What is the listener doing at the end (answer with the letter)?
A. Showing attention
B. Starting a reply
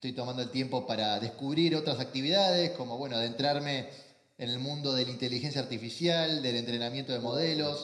A